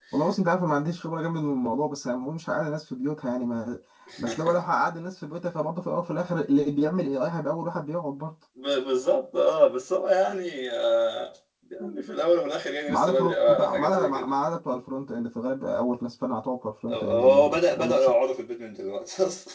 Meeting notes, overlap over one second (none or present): present